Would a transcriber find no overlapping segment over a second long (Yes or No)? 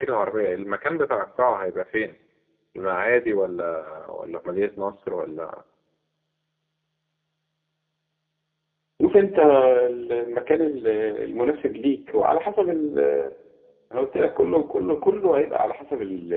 Yes